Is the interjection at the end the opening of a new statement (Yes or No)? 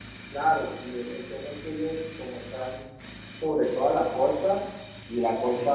No